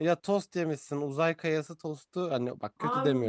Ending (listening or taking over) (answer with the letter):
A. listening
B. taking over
B